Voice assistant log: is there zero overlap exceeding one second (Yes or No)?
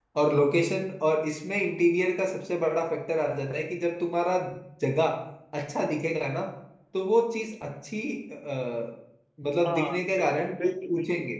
No